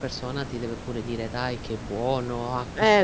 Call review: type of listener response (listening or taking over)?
taking over